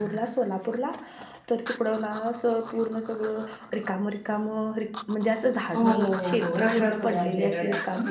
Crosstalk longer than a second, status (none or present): present